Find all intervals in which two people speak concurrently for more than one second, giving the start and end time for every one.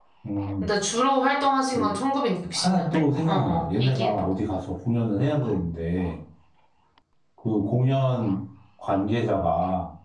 2.6-4.1

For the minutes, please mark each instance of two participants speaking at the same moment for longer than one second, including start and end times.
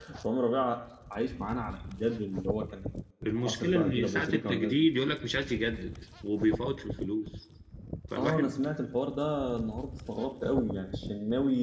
3.5-4.9

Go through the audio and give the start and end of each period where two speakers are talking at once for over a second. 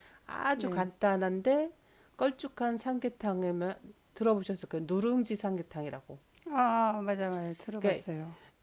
none

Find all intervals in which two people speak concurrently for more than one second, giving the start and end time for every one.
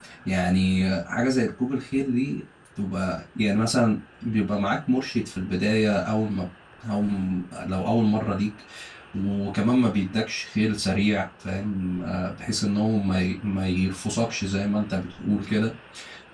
none

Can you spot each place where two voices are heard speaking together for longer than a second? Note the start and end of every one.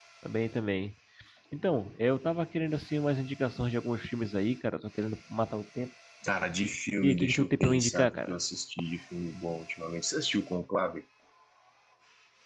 7.0-8.3

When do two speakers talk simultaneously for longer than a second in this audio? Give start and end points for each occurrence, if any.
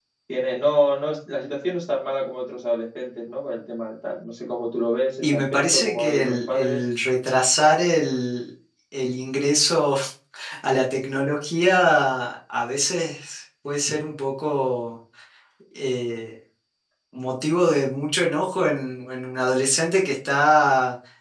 5.2-6.8

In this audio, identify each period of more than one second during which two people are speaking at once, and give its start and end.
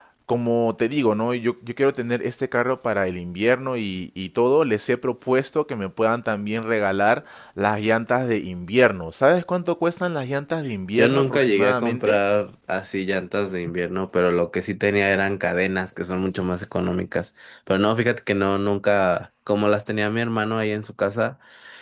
11.0-12.2

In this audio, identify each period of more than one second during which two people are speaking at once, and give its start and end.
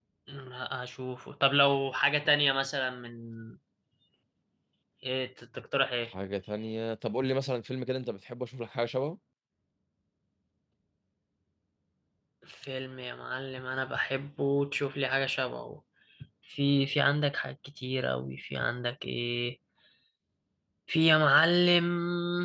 none

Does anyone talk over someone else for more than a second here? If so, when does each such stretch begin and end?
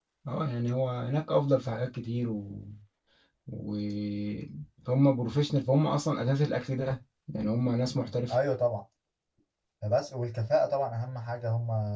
none

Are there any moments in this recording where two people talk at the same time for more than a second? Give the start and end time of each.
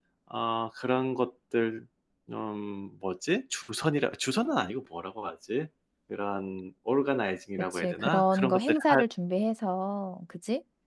7.7-9.0

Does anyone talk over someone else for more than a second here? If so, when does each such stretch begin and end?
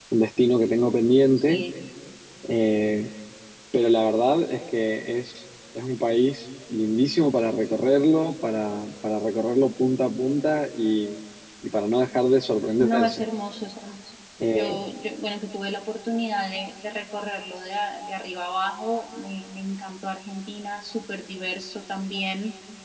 none

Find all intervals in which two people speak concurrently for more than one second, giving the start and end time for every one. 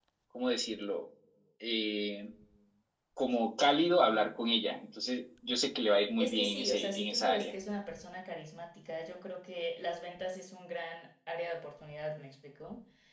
6.2-7.5

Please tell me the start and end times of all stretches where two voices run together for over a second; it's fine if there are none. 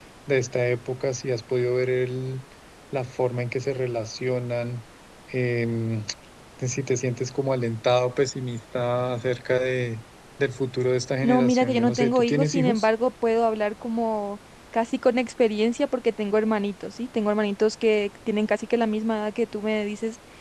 11.2-12.9

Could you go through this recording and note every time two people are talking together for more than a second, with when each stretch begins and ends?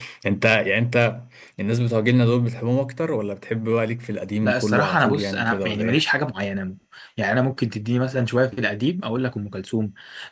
4.4-6.0

